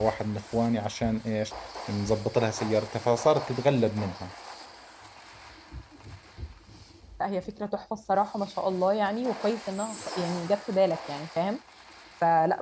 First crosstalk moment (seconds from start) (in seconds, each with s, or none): none